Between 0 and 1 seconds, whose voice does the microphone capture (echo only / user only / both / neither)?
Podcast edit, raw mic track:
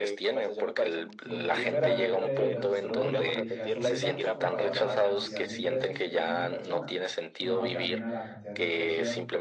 echo only